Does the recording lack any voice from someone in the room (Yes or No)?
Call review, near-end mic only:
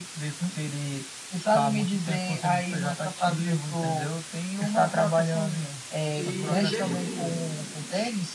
No